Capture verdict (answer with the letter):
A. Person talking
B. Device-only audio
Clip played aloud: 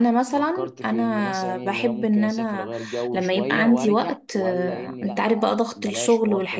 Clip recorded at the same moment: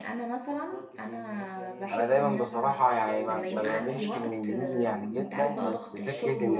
A